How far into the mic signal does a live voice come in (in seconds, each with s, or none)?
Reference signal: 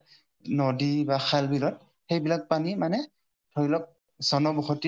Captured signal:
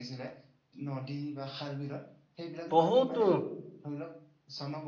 2.8 s